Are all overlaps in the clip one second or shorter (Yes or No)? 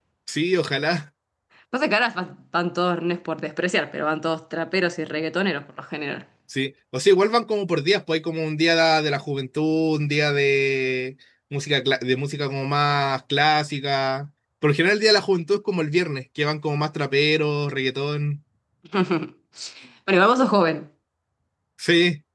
Yes